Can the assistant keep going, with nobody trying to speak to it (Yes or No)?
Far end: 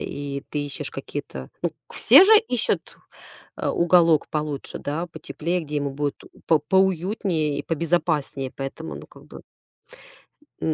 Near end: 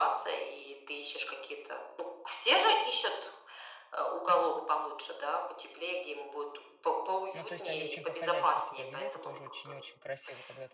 No